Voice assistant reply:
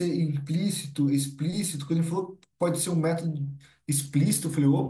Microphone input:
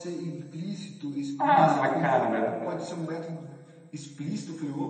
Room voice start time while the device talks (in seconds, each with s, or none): 1.4 s